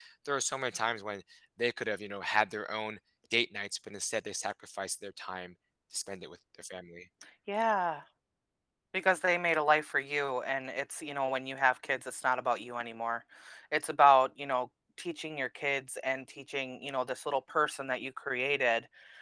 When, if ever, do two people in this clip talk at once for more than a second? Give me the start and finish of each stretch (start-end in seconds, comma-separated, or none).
none